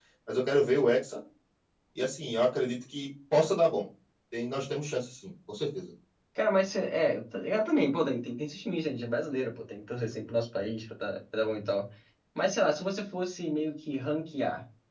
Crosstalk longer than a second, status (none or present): none